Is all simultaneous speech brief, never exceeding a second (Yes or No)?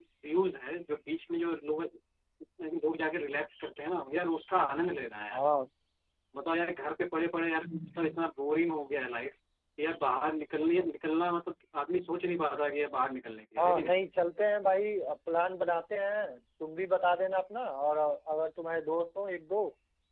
Yes